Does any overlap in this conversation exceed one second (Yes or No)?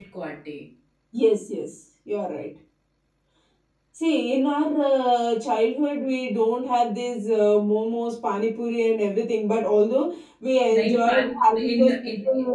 Yes